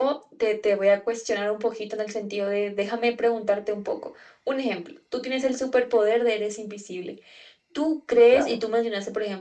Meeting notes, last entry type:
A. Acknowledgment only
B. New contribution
A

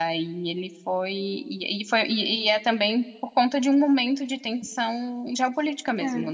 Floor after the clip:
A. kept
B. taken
B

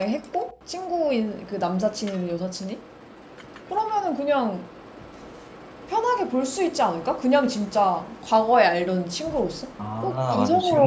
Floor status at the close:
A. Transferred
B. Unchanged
A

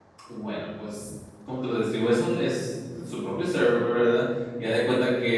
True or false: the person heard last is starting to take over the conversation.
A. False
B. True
A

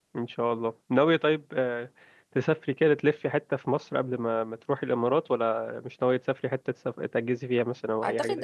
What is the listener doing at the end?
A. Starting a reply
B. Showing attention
A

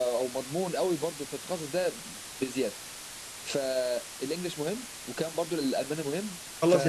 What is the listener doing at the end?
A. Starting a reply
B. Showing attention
A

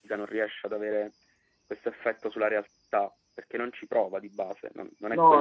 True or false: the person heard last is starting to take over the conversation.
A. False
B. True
B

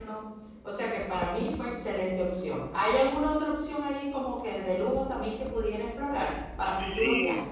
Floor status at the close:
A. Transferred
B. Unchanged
A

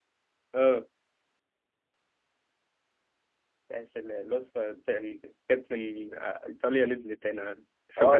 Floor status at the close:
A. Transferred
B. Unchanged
A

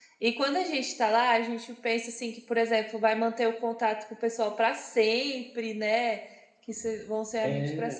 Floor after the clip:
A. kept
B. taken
A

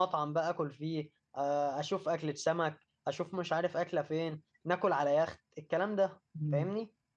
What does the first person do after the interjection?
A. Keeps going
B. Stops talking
B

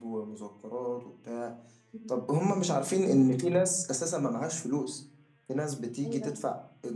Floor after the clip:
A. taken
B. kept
B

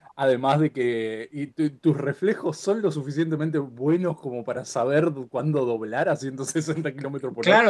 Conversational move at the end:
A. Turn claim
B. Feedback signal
A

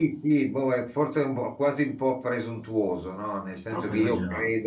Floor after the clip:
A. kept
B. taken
A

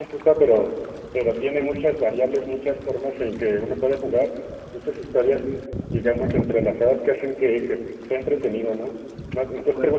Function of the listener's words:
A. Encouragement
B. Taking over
A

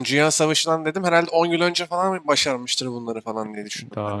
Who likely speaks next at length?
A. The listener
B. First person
A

